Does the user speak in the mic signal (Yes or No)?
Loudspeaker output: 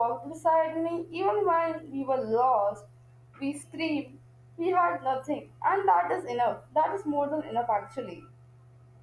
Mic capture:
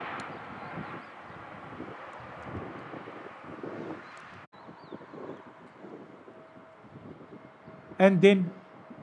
Yes